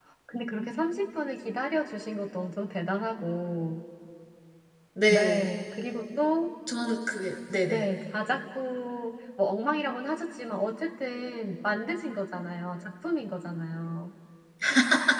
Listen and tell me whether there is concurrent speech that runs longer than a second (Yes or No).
No